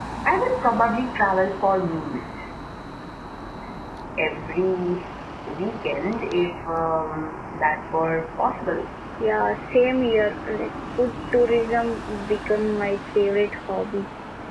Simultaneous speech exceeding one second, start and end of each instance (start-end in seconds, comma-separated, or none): none